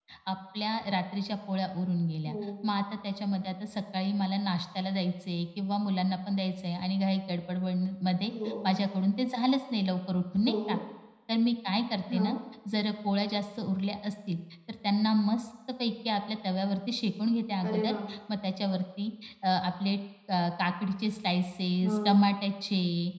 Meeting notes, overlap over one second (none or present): none